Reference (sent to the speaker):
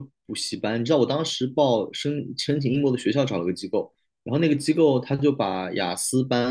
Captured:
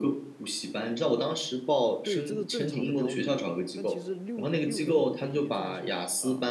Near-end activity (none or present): present